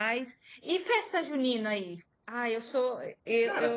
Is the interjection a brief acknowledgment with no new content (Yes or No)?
Yes